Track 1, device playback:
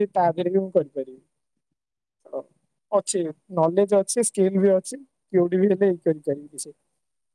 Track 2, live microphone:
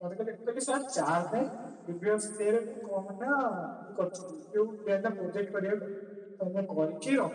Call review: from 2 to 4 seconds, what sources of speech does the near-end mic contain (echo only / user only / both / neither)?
user only